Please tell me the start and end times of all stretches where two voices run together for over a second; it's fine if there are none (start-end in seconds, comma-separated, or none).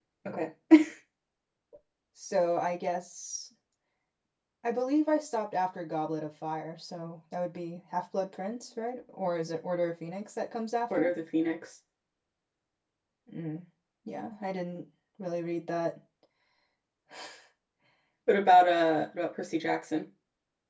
none